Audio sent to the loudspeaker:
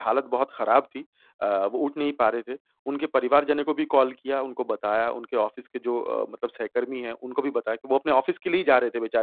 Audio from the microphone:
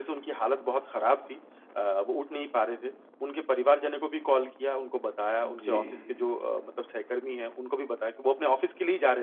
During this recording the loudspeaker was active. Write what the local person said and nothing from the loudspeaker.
जी,

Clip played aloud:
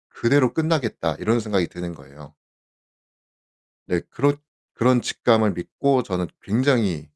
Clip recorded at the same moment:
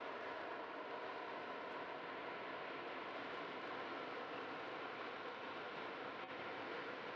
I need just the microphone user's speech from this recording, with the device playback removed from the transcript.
none

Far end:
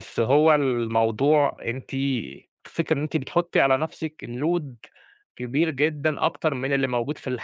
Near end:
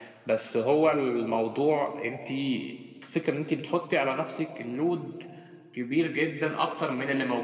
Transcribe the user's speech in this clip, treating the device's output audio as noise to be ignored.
none

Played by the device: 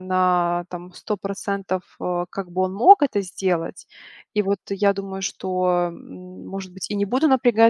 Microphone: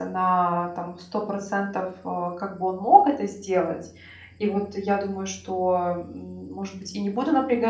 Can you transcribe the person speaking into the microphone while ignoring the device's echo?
none

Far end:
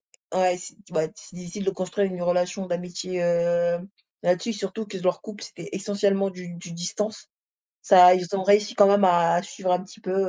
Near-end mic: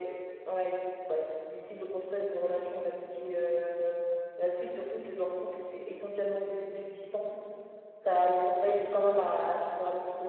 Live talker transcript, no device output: none

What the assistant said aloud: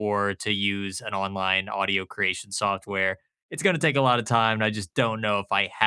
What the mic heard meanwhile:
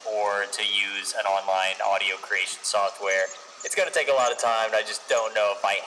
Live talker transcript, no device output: none

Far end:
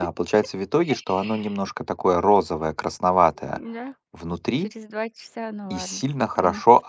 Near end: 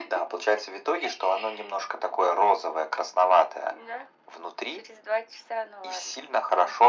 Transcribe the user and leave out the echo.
none

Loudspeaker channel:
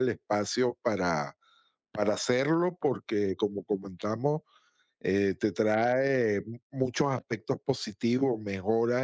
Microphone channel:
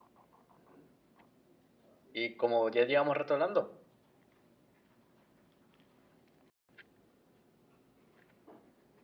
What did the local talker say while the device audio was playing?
Y como ya llevamos rato hablando,

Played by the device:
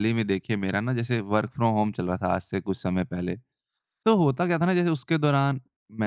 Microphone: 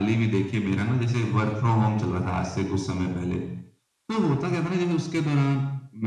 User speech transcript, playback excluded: none

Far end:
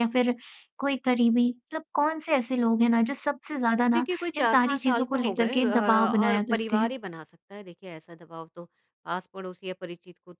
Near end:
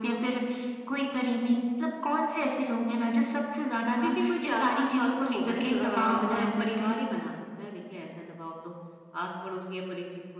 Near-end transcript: none

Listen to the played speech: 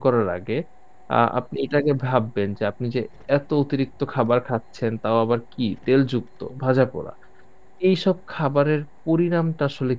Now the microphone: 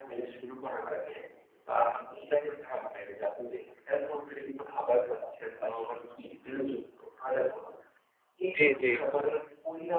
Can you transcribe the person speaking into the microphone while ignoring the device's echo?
জি, জি।

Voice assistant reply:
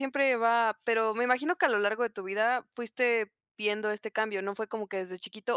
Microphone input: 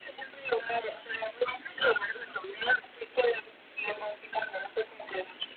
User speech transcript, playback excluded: none

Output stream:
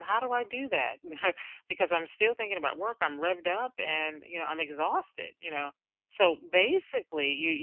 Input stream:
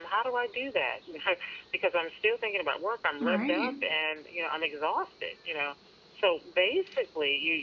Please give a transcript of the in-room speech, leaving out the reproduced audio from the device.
Right.

